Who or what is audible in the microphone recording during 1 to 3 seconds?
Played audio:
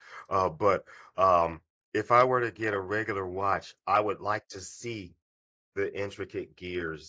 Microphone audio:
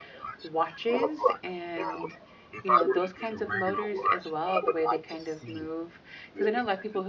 both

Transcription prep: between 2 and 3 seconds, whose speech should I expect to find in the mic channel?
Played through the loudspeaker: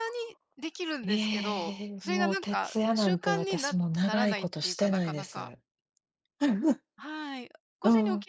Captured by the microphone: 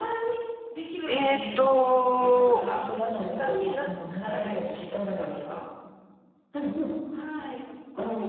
both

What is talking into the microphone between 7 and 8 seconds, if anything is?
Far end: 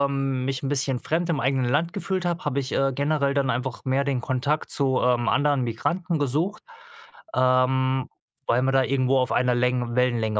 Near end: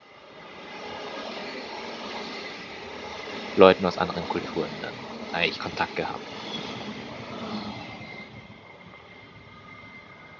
neither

